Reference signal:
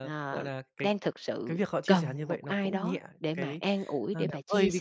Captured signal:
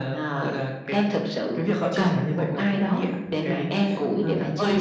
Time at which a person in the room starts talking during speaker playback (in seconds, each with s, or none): none